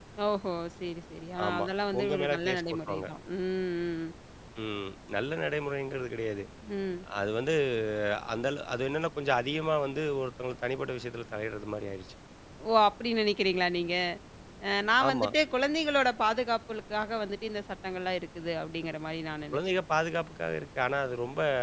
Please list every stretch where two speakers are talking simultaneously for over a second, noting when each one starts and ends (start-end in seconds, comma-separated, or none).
1.5-3.1